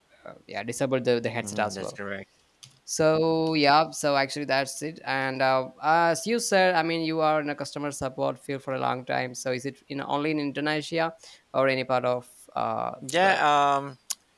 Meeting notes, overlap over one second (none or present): none